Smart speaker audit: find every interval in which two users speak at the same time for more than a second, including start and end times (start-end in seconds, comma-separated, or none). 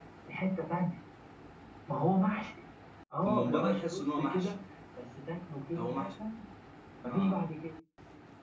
3.3-4.5